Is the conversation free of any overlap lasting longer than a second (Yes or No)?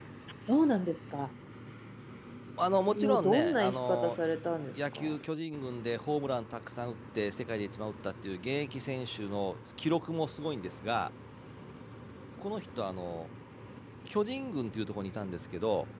No